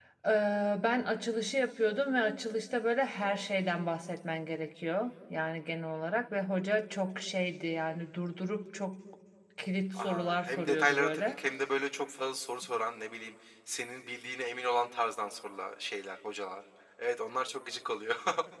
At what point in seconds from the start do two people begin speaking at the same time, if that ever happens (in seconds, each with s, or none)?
9.9 s